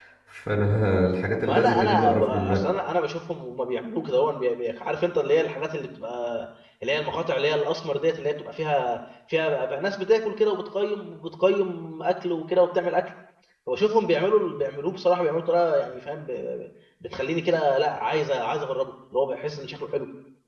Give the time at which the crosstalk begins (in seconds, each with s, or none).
1.4 s